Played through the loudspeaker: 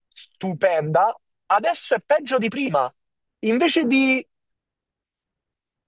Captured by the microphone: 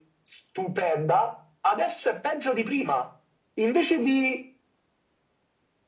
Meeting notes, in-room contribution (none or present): none